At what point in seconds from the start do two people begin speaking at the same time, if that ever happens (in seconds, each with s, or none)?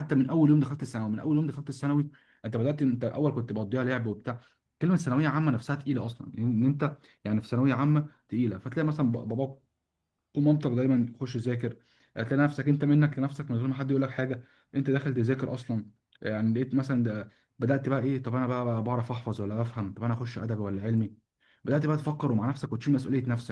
none